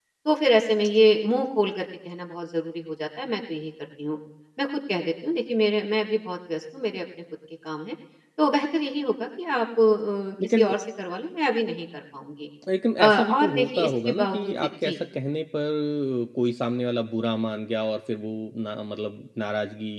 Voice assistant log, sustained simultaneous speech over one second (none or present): present